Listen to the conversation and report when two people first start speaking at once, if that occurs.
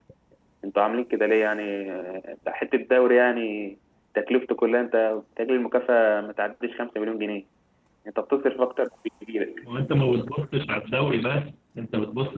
none

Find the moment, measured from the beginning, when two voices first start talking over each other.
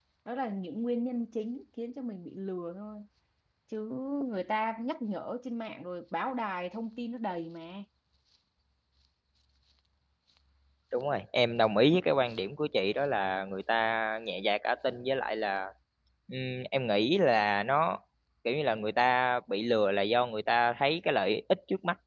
none

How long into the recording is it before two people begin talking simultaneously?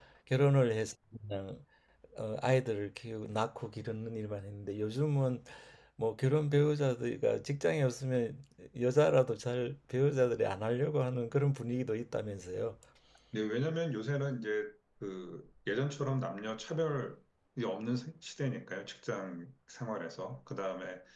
none

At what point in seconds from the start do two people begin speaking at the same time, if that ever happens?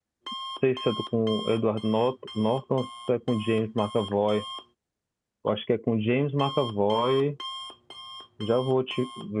none

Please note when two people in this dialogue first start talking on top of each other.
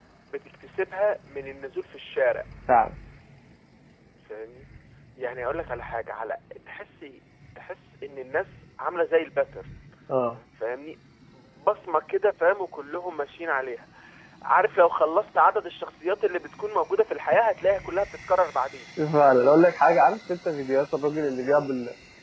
none

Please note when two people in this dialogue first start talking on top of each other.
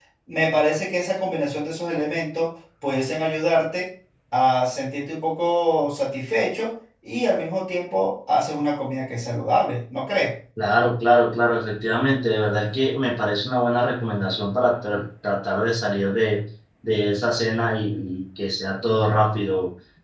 none

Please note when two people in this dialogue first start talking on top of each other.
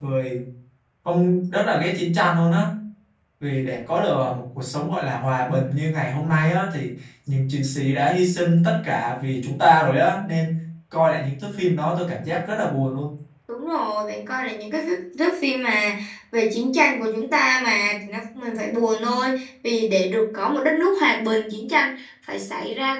none

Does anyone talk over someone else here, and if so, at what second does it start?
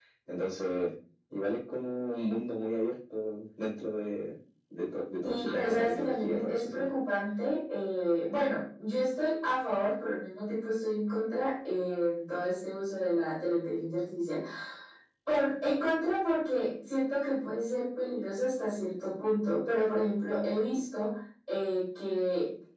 5 s

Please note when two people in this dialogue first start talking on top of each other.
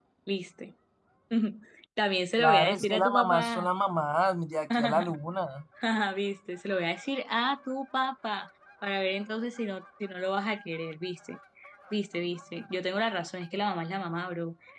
2 s

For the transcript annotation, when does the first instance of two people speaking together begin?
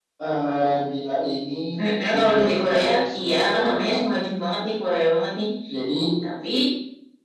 2 s

